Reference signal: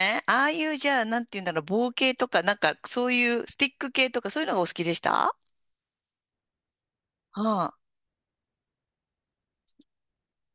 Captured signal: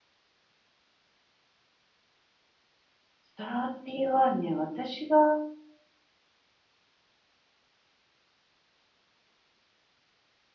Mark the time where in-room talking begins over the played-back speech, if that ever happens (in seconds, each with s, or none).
3.4 s